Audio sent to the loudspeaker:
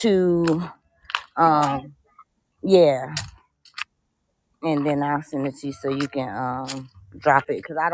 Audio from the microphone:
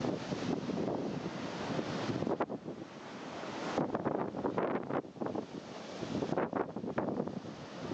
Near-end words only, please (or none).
none